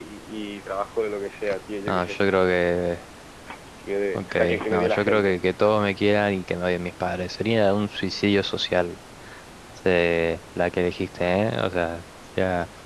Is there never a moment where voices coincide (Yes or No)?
No